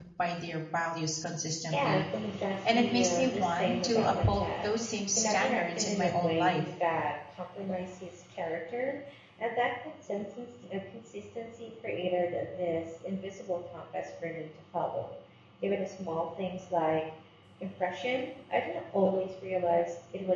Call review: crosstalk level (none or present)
present